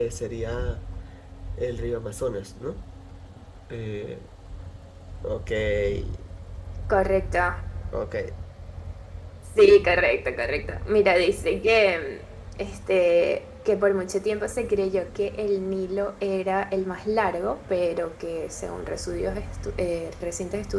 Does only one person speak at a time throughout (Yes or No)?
Yes